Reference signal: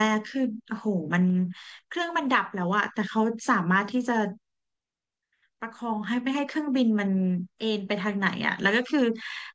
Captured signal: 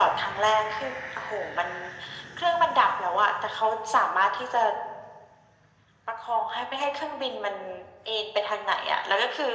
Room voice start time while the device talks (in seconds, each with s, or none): none